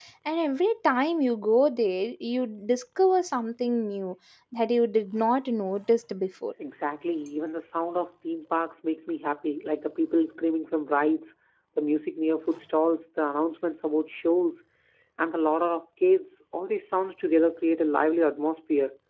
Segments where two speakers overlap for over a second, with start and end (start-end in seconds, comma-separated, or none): none